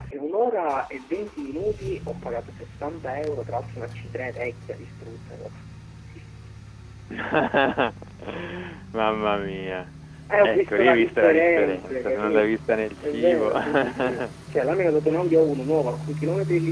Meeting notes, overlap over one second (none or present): present